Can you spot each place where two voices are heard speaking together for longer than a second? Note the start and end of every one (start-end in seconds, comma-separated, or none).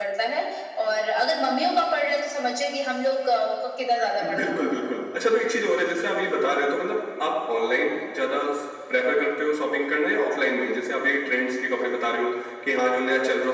none